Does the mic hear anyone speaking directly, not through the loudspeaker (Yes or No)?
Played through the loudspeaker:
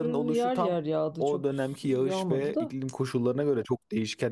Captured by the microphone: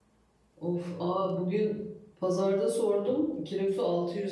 Yes